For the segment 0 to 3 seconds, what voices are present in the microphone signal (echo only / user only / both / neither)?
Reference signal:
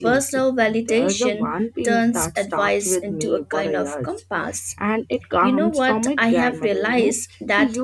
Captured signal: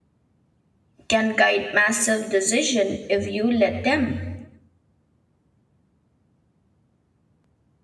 user only